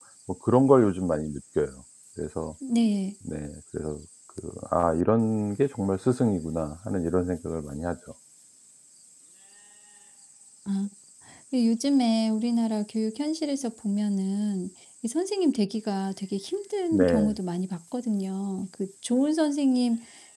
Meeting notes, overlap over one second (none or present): none